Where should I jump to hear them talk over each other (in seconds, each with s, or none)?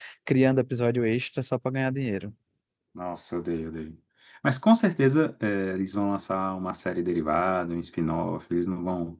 none